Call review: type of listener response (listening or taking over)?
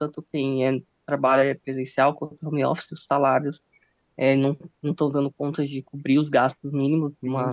listening